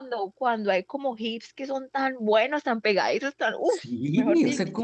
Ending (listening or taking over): taking over